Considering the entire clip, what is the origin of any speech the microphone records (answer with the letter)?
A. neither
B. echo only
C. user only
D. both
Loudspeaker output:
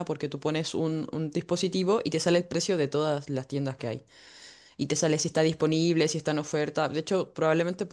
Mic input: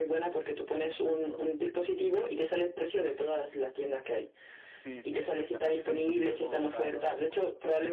D